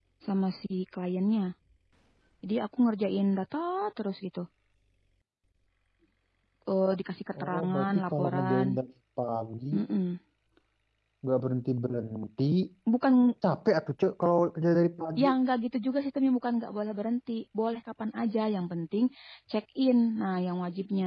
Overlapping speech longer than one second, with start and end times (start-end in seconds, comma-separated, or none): 7.4-8.7